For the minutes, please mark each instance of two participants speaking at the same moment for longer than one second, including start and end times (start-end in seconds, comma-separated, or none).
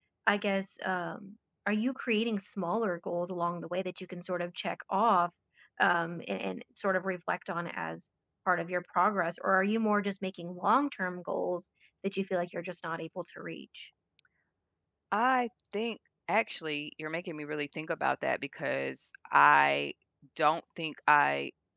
none